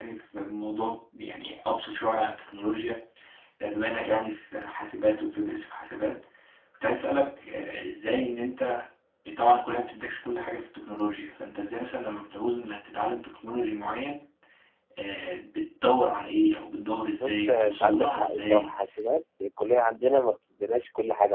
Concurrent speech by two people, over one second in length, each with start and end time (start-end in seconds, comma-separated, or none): 17.2-18.7